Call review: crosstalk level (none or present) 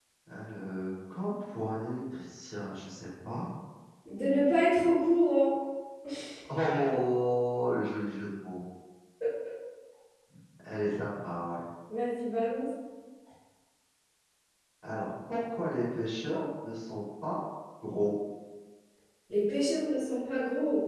none